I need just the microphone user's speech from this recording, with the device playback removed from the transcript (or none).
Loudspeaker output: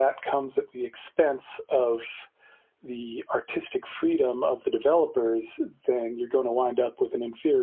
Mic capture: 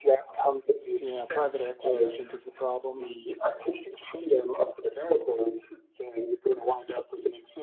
Yeah, private equity, I think, is the problem.